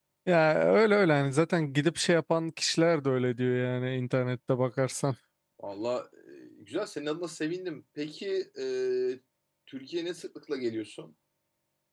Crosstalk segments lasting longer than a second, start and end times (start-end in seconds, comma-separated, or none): none